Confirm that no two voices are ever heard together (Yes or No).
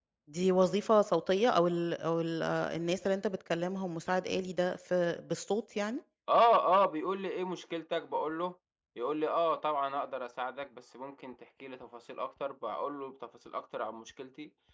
Yes